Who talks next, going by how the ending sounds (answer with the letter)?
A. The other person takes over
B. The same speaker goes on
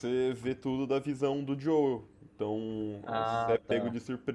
B